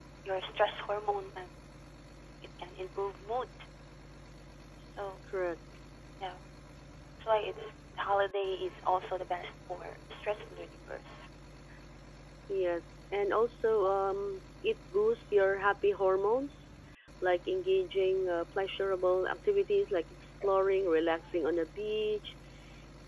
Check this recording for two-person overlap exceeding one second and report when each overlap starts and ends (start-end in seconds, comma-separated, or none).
none